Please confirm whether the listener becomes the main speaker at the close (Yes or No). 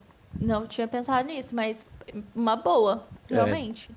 Yes